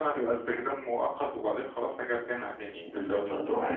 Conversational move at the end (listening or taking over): taking over